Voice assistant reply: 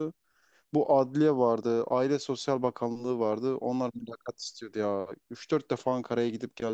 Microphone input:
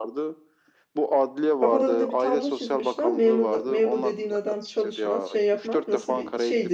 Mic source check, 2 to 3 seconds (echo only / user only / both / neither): both